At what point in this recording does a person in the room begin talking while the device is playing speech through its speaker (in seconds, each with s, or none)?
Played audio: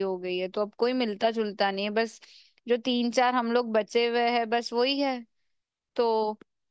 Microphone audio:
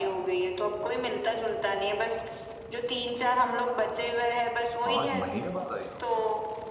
4.8 s